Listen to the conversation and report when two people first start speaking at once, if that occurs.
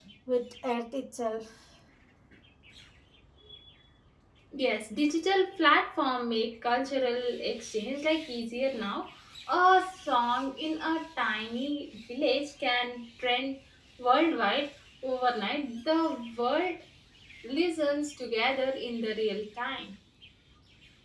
none

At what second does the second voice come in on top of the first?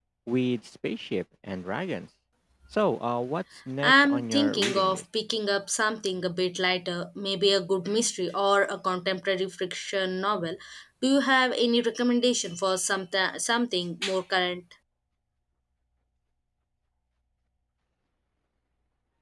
3.8 s

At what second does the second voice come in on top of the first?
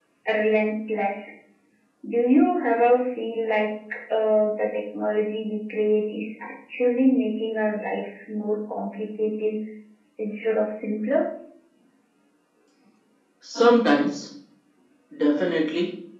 none

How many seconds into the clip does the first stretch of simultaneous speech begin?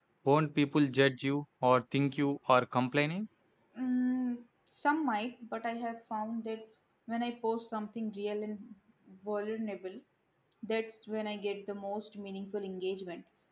none

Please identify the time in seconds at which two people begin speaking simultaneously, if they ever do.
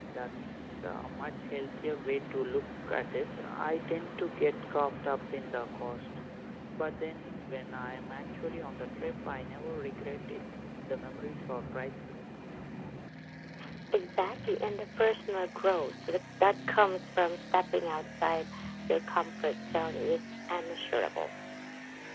none

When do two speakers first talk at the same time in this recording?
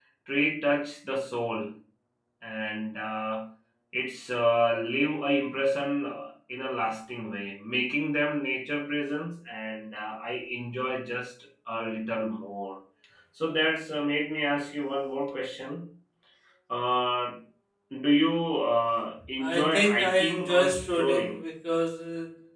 19.4 s

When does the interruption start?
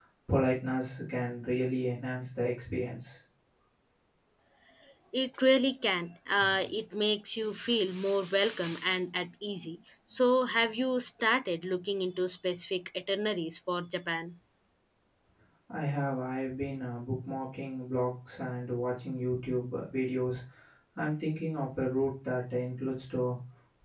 none

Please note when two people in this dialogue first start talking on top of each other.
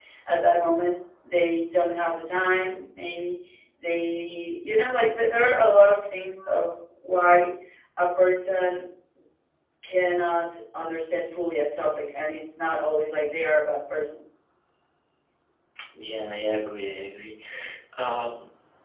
none

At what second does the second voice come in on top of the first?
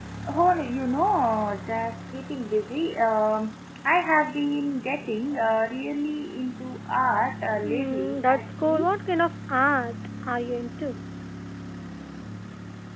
7.6 s

